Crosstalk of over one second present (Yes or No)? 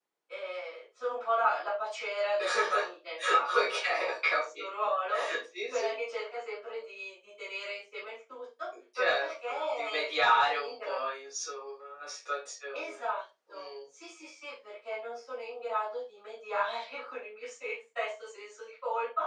Yes